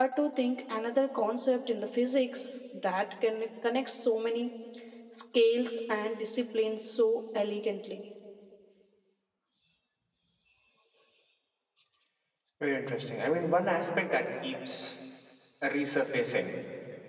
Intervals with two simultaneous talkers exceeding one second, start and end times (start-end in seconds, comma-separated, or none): none